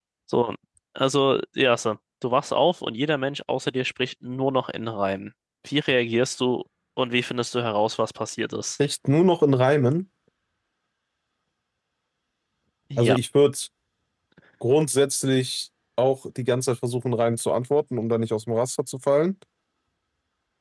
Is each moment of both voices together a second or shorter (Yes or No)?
Yes